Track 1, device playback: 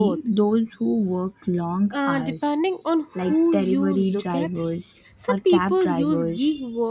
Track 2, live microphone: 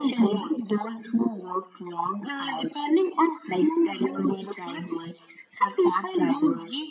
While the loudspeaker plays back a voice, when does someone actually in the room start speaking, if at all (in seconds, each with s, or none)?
none